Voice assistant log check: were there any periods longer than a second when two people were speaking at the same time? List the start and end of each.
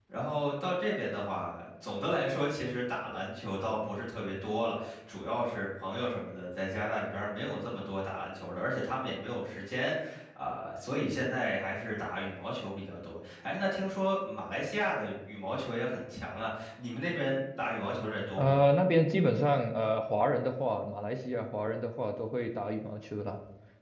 none

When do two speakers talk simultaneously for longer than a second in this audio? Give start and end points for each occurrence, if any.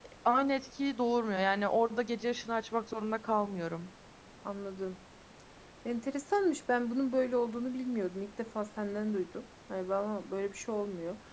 none

